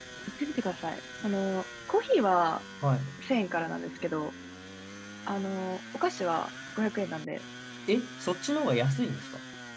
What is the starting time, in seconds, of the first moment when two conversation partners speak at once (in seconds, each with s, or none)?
none